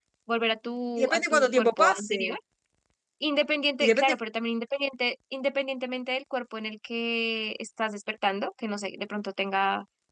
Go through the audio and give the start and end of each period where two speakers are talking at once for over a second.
1.0-2.4

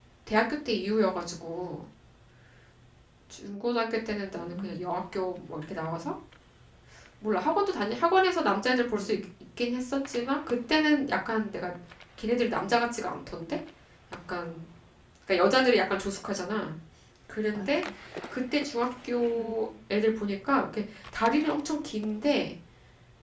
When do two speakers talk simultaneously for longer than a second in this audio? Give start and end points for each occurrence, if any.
none

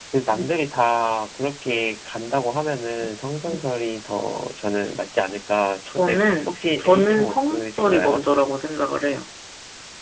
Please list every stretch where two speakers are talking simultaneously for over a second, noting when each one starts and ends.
5.9-8.2

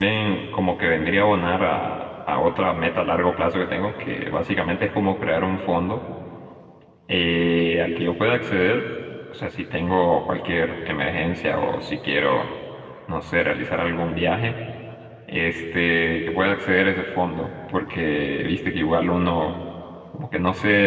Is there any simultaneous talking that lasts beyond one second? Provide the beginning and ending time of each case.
none

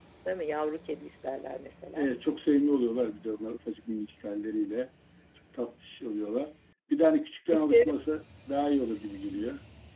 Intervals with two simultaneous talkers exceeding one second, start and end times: none

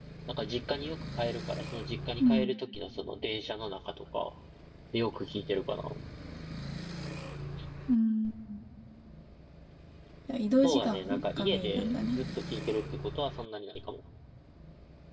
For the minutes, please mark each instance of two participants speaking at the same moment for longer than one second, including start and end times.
10.6-12.2

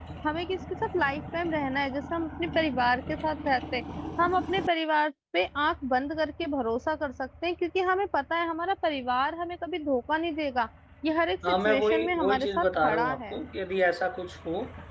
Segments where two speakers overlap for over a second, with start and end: 11.5-13.3

